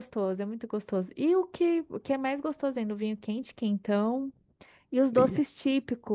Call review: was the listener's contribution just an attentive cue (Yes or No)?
Yes